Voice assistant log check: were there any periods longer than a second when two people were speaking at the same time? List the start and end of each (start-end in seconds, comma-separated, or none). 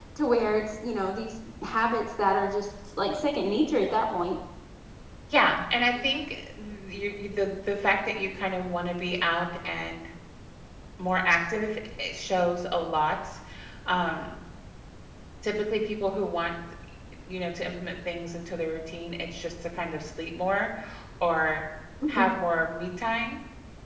none